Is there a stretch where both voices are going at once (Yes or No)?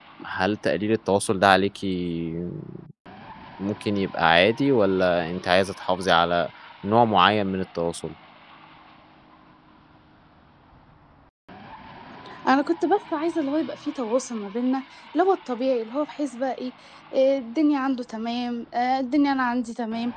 No